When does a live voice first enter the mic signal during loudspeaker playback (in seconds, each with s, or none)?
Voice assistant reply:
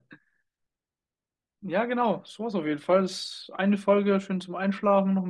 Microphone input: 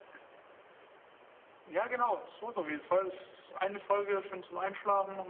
none